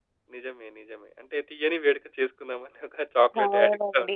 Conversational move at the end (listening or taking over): taking over